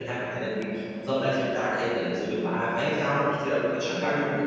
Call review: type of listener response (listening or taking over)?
taking over